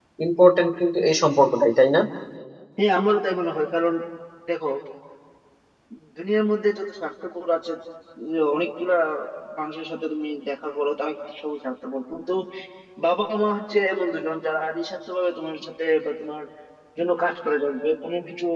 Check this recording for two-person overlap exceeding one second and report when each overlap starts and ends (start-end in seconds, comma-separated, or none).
none